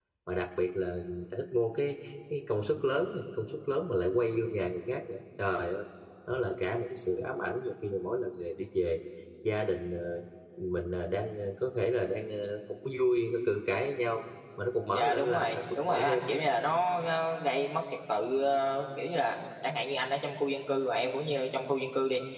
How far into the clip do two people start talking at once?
14.9 s

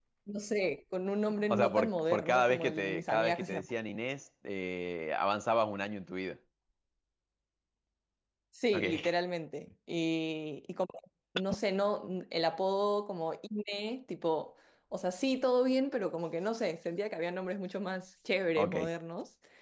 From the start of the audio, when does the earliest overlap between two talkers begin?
1.5 s

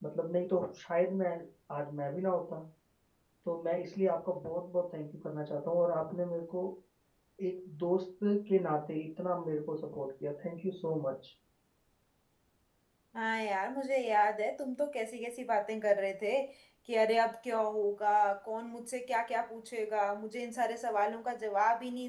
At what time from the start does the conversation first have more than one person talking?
none

